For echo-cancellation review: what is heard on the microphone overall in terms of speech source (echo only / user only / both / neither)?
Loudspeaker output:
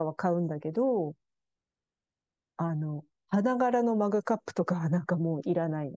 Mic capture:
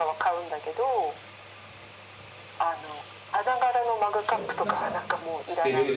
both